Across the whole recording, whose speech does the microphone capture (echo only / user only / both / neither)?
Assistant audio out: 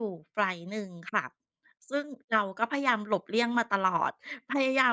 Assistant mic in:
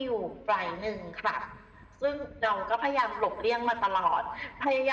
echo only